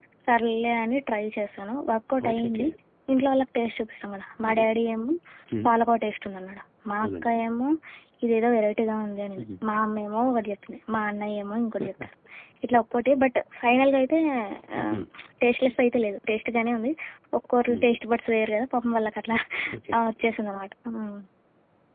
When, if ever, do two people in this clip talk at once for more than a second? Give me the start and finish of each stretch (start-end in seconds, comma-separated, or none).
none